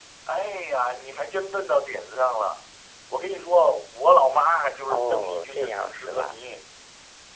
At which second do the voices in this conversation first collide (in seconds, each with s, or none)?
4.9 s